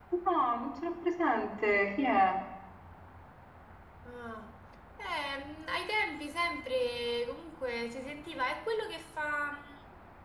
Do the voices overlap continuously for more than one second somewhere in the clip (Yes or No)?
No